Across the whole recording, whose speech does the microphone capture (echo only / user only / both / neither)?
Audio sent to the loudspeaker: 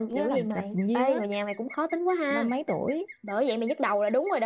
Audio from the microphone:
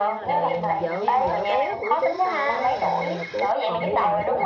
both